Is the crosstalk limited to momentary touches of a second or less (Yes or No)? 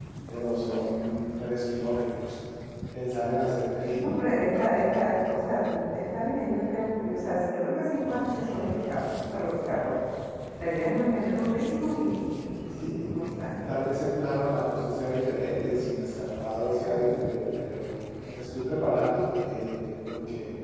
Yes